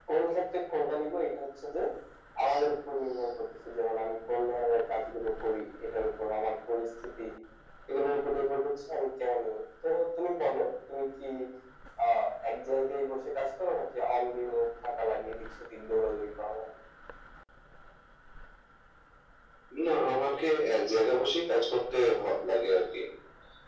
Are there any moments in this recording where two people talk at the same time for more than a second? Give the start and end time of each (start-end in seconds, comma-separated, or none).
none